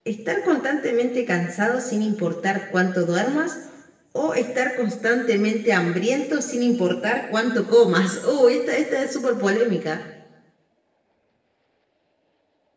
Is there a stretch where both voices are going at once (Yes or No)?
No